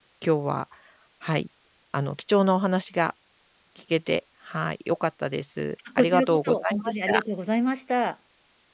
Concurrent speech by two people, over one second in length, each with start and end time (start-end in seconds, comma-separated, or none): 6.0-7.2